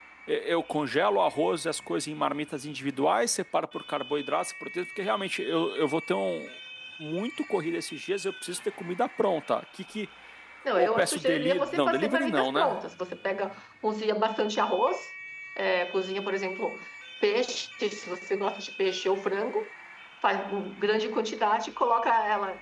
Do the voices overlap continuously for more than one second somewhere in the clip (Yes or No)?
Yes